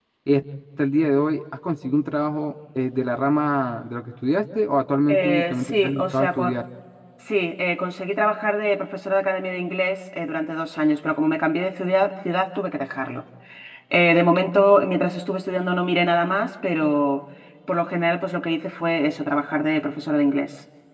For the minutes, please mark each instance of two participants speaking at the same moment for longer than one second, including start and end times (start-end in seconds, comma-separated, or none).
5.1-6.5